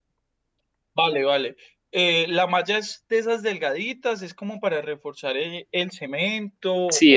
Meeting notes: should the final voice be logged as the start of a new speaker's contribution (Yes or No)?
Yes